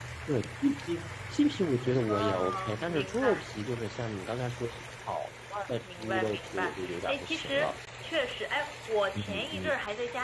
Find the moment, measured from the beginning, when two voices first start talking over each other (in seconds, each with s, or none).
2.0 s